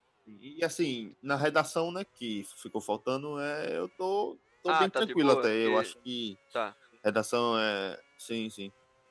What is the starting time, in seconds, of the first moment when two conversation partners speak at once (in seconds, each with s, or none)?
4.7 s